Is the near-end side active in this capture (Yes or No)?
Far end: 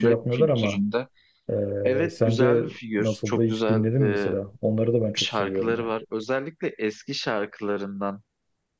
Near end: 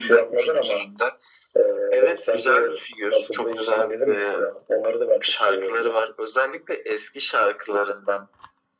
No